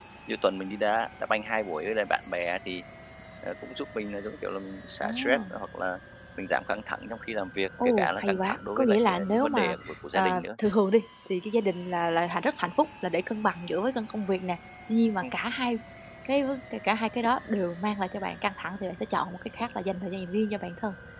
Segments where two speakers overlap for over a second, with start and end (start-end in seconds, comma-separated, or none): 7.8-10.4